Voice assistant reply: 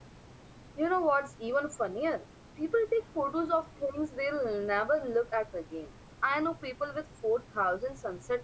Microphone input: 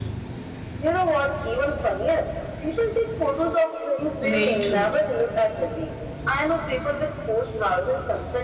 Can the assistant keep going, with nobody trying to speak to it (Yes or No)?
No